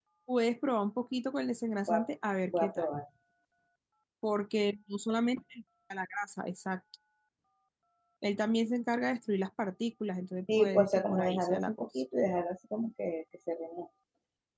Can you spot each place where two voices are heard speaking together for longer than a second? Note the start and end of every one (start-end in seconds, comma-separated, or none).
10.6-11.9